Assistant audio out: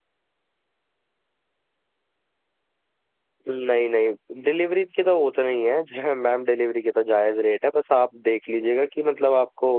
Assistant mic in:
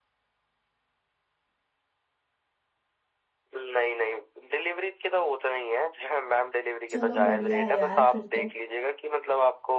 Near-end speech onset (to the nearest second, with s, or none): 7 s